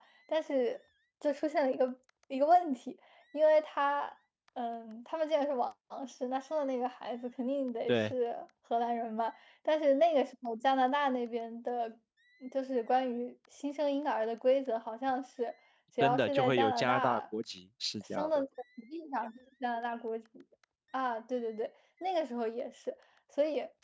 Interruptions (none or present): present